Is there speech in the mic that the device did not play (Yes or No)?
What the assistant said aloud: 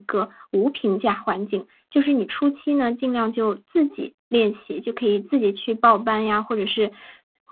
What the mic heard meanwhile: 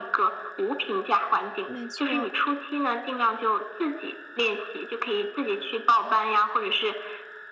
Yes